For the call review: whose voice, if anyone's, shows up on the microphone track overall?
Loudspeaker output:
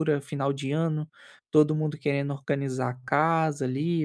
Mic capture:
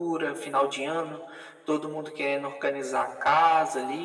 echo only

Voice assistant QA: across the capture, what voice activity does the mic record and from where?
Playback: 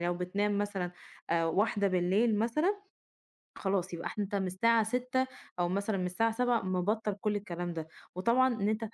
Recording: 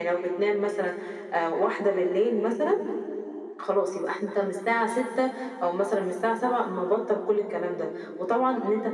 echo only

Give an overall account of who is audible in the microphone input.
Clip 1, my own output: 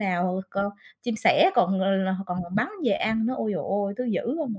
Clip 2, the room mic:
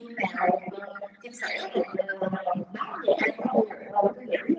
echo only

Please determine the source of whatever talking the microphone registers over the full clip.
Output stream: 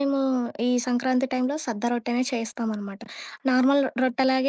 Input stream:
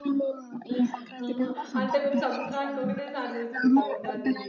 both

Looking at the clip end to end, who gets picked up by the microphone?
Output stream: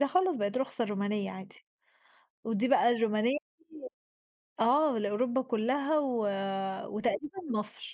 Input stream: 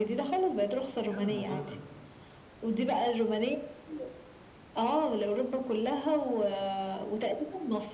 both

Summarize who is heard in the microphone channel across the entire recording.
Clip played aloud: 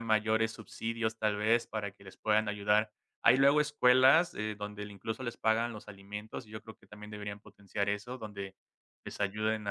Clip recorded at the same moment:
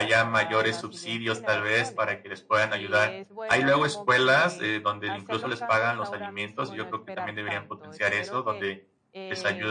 both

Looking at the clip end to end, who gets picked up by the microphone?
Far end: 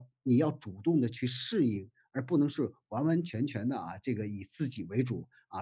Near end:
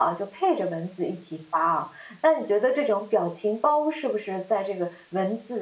user only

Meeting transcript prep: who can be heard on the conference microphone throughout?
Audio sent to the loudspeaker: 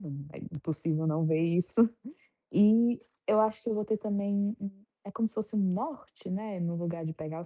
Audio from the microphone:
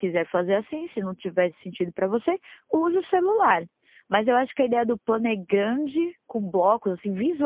user only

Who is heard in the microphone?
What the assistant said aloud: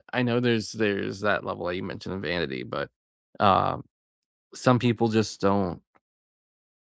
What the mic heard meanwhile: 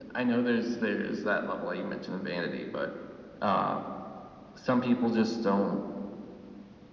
echo only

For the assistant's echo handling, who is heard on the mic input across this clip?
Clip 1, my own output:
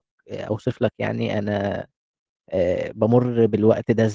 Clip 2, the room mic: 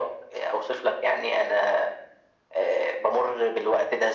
echo only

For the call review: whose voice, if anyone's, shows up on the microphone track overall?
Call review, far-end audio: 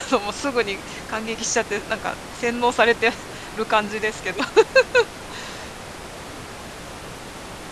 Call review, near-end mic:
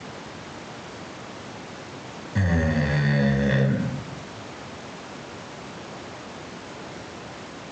user only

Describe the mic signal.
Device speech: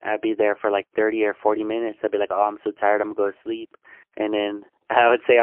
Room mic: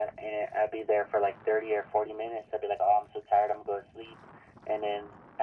echo only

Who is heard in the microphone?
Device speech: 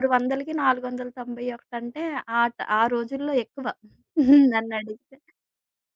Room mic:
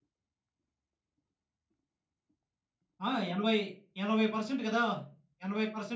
user only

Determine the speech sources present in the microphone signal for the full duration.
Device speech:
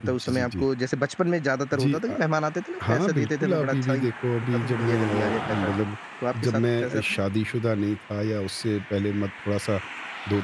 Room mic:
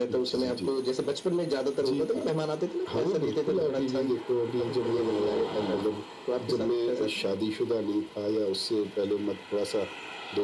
echo only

